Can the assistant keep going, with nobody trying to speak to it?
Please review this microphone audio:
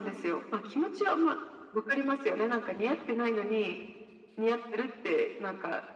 Yes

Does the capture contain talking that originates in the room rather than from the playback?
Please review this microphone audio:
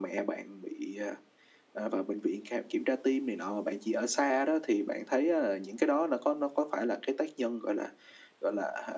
No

